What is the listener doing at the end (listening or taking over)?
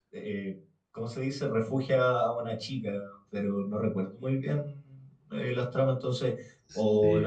listening